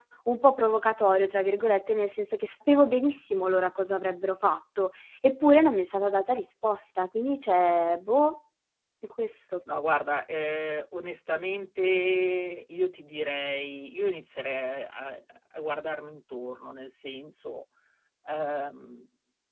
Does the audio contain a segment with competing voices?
No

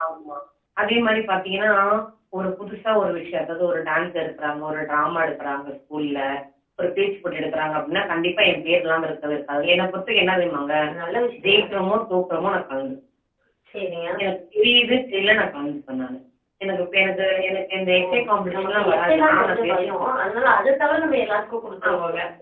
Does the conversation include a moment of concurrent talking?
Yes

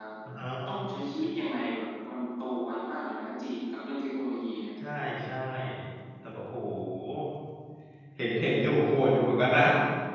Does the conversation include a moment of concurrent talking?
No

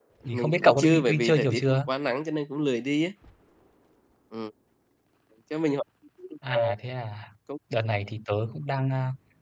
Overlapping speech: Yes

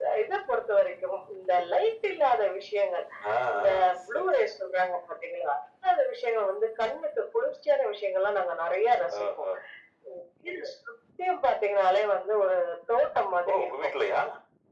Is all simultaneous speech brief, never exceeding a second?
Yes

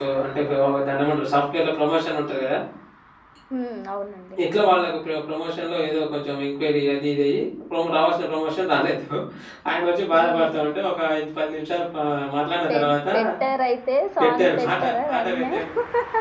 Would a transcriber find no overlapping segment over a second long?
No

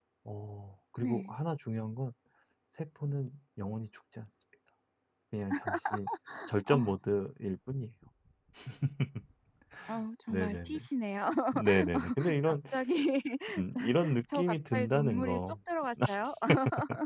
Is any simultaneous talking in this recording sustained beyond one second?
Yes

